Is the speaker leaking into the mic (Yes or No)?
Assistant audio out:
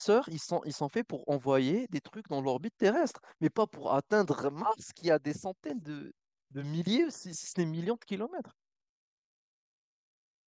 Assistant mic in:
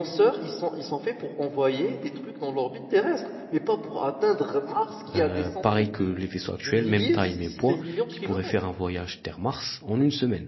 Yes